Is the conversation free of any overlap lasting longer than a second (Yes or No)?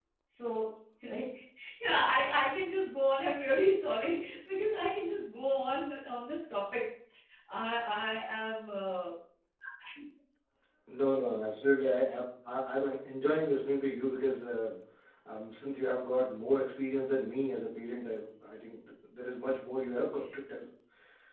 Yes